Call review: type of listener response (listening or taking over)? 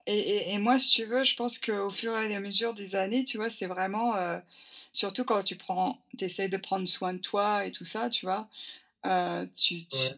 listening